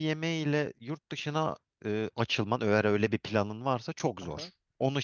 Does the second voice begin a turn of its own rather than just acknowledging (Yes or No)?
Yes